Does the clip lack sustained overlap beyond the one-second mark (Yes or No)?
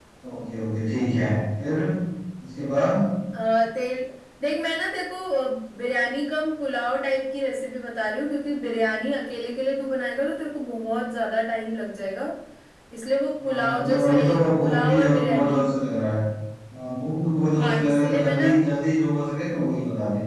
No